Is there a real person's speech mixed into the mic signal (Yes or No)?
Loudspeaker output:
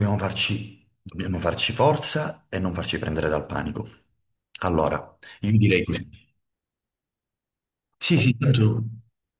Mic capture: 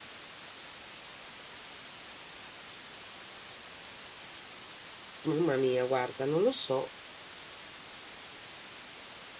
Yes